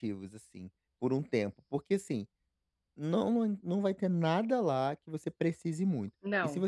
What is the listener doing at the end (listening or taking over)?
listening